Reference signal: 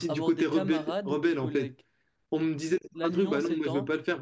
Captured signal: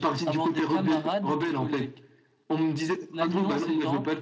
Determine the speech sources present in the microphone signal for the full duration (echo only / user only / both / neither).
echo only